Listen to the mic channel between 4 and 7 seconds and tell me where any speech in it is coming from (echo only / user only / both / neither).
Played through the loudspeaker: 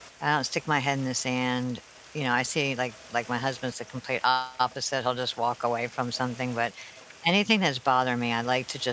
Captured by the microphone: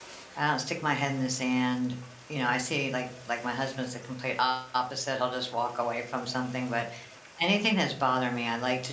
echo only